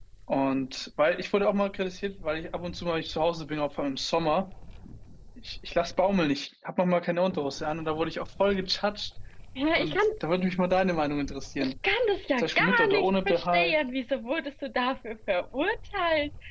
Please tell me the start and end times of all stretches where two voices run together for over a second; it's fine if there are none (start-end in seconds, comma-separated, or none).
12.4-13.8